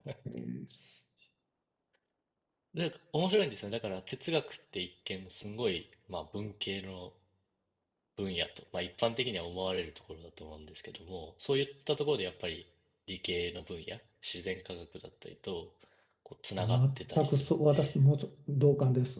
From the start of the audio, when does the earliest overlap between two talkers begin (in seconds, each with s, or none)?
16.6 s